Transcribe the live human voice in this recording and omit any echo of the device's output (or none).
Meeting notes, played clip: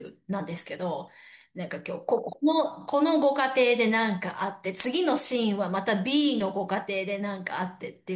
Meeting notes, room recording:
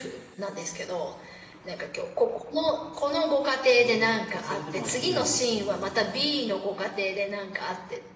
ええ、それでも飽きないっていうのが、